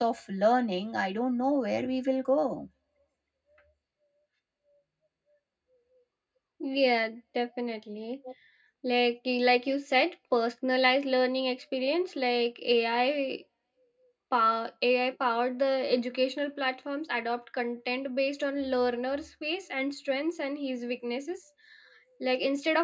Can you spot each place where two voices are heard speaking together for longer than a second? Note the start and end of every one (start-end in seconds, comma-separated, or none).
none